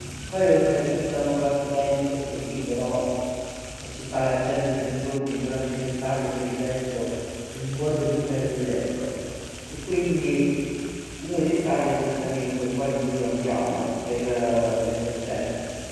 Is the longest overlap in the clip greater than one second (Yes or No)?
No